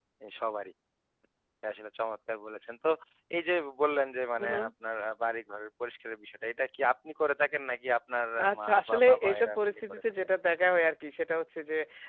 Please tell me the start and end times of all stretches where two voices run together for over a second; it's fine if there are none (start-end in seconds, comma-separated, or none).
8.5-10.0